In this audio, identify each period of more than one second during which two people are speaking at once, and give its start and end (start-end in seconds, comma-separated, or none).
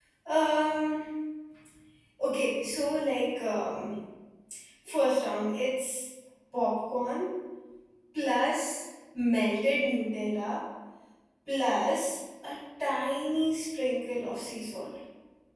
none